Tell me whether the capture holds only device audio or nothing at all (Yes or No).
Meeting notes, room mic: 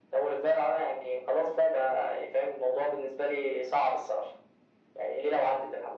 Yes